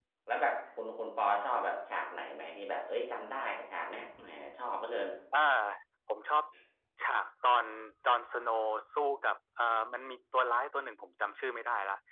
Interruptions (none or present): none